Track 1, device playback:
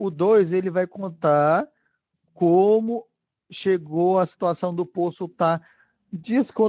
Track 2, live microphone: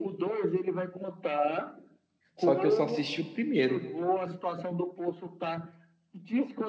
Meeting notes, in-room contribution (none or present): present